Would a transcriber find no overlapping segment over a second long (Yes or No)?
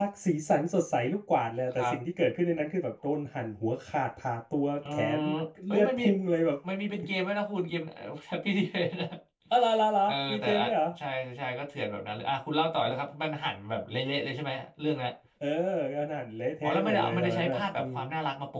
No